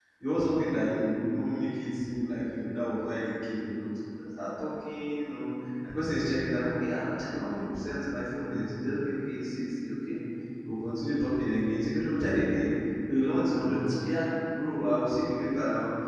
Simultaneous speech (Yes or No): No